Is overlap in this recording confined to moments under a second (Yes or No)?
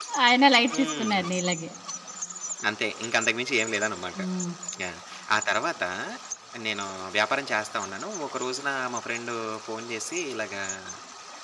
Yes